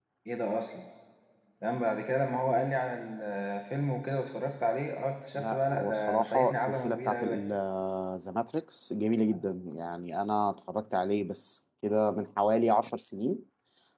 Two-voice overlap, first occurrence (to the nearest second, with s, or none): 5 s